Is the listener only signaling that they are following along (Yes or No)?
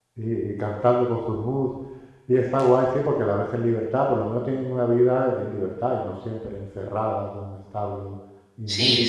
No